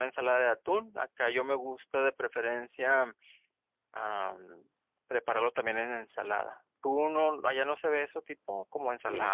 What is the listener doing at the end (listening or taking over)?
taking over